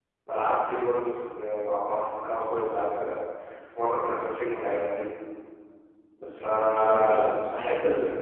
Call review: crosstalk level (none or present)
present